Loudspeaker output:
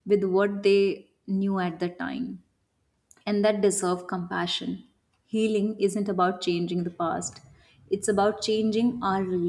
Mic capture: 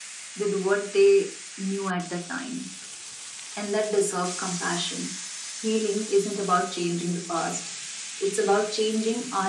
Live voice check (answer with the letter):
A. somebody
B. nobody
B